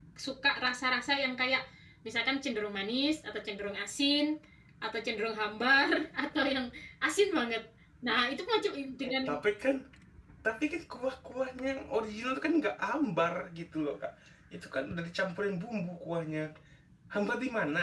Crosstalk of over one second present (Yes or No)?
No